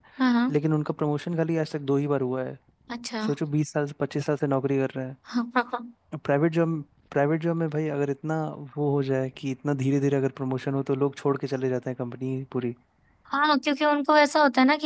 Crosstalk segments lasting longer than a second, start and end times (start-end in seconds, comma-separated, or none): none